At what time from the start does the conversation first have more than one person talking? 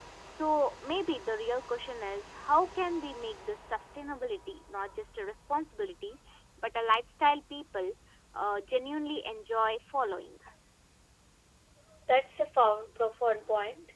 none

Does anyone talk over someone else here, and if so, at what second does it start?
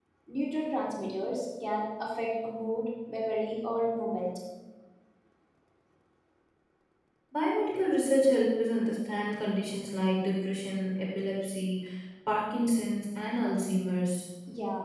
none

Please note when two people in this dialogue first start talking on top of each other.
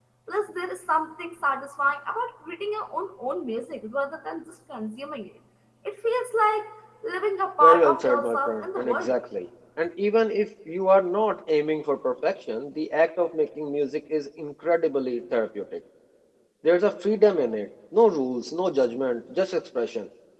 7.6 s

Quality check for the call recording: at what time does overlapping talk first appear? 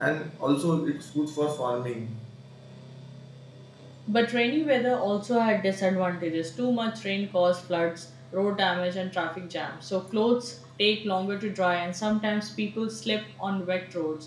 none

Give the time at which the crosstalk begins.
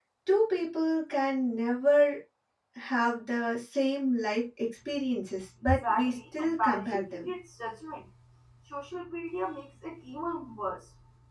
5.7 s

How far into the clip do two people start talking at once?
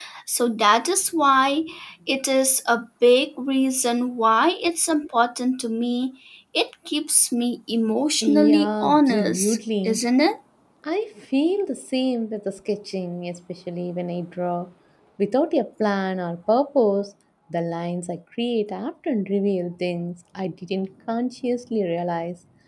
8.2 s

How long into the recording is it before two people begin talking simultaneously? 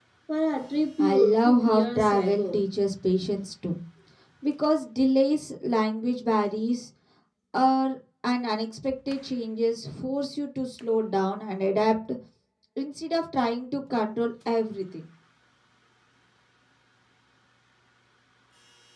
1.0 s

